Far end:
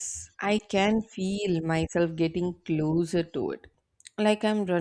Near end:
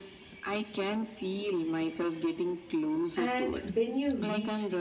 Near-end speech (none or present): present